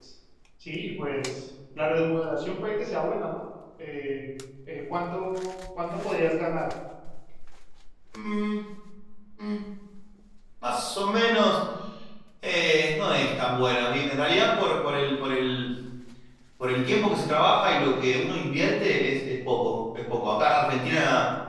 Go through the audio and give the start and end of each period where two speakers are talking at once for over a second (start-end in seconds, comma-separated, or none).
none